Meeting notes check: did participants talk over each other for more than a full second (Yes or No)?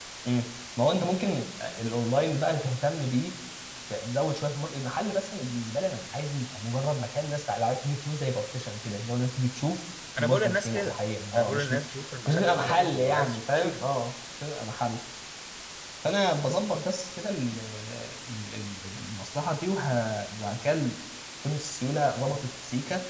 Yes